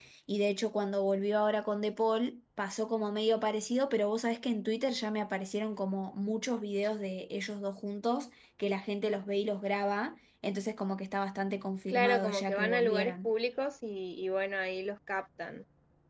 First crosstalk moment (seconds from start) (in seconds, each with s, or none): 11.9 s